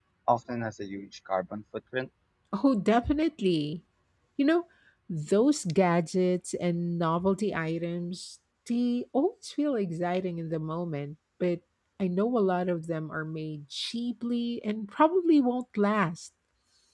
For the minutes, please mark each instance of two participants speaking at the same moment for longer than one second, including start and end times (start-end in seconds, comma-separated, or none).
none